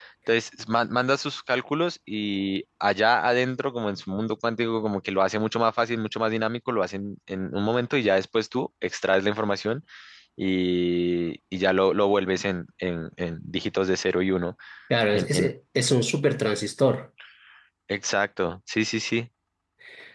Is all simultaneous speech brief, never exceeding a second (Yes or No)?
Yes